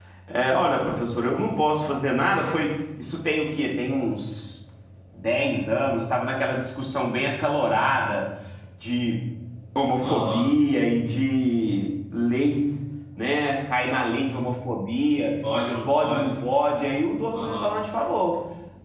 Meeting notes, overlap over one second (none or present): none